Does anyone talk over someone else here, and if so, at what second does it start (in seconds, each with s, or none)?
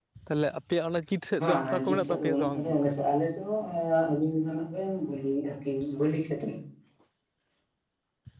1.4 s